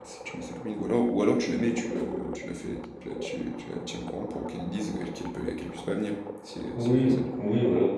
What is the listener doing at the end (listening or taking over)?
taking over